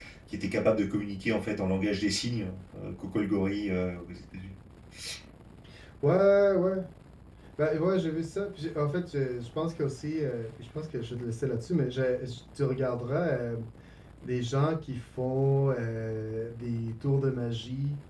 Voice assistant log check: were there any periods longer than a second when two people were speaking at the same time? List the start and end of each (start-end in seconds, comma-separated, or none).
none